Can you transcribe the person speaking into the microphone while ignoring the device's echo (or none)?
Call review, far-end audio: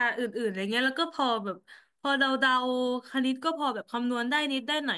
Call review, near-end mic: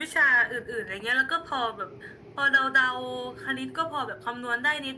none